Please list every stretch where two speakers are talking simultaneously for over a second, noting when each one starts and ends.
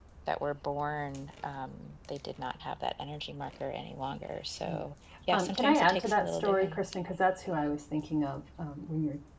5.3-6.8

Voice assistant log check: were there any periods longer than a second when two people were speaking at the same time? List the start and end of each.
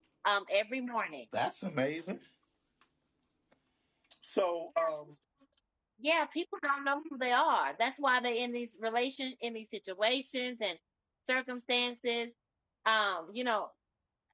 none

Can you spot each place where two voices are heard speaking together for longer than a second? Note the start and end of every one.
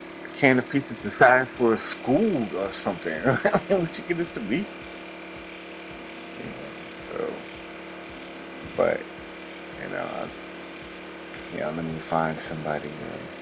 none

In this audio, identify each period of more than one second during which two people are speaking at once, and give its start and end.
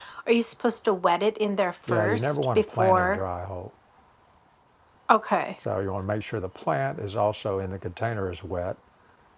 1.9-3.2

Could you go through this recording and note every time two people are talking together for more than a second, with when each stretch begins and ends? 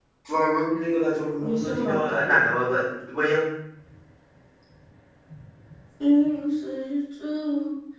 1.4-2.7

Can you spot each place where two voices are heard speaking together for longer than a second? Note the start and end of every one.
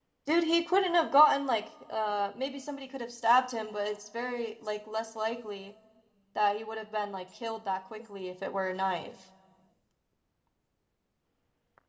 none

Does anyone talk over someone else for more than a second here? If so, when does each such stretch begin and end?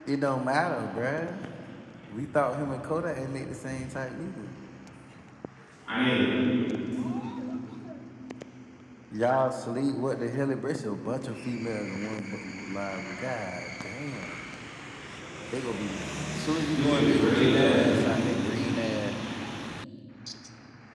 16.8-18.0

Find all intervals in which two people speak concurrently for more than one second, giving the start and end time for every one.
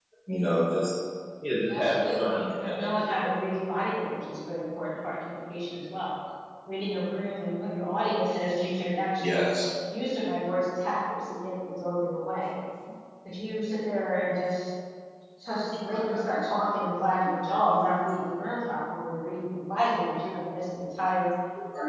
1.7-3.4

